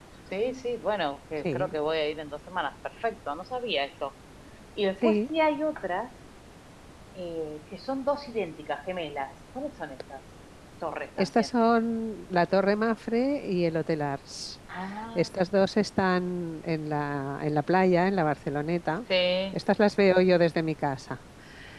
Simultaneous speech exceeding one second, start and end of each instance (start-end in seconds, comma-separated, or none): none